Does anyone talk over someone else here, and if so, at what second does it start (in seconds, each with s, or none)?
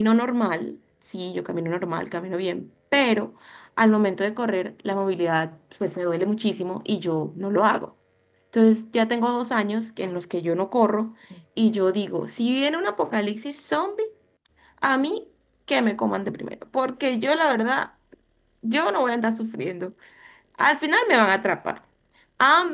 none